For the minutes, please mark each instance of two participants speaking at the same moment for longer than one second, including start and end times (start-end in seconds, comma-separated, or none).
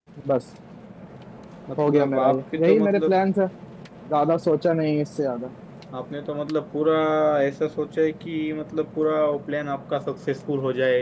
1.8-3.1